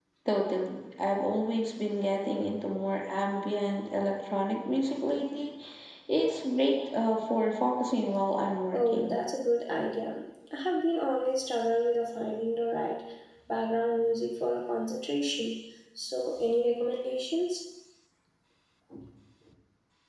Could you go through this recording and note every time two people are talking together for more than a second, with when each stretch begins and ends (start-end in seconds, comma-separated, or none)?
none